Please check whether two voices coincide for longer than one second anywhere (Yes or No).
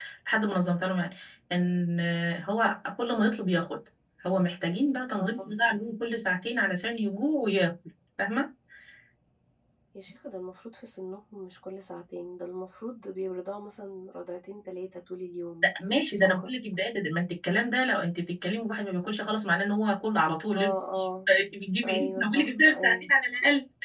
Yes